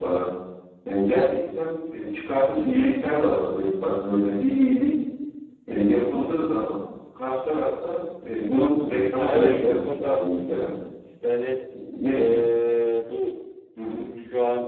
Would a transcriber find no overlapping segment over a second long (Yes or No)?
No